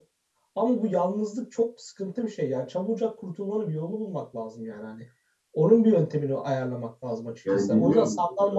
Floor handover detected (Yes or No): No